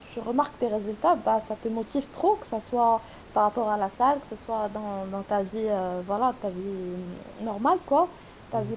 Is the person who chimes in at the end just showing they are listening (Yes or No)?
Yes